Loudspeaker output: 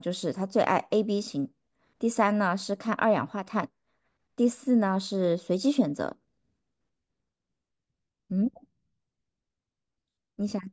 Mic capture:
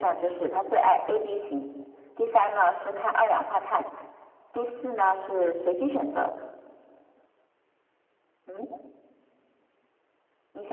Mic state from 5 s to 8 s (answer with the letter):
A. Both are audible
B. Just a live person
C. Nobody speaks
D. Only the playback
D